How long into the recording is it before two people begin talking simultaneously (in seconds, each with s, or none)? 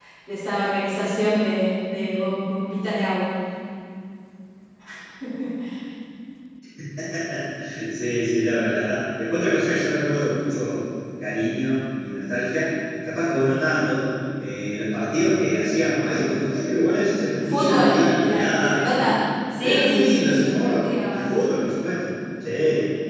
17.3 s